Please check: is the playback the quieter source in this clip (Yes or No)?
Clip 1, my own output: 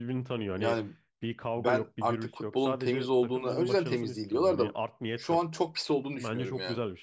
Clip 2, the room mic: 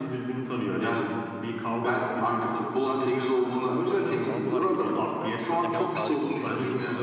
No